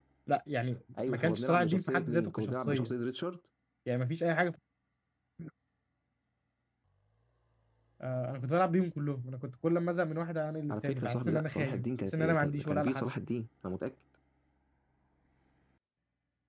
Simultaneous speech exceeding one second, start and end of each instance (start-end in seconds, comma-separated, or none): 1.1-2.9, 10.7-13.1